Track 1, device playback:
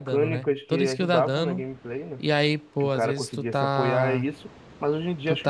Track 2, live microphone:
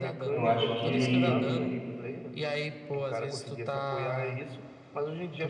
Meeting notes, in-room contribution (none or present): present